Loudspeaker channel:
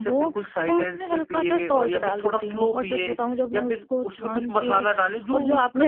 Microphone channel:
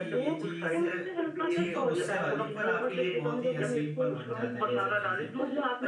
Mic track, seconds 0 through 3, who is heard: both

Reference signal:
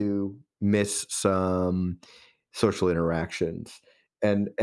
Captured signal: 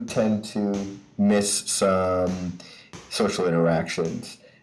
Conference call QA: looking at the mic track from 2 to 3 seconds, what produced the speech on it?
echo only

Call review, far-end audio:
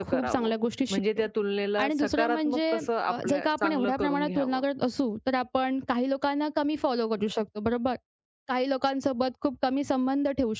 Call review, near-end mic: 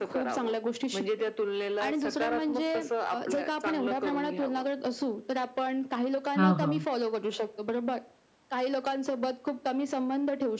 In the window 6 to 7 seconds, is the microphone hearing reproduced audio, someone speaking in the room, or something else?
both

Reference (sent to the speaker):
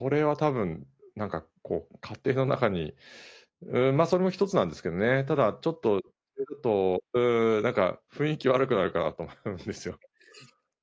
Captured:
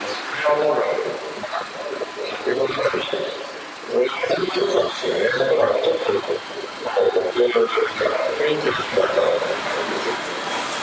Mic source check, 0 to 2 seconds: echo only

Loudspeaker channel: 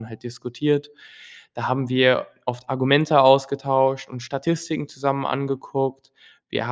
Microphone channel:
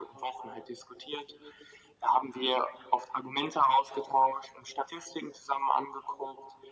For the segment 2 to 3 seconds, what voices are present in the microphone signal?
echo only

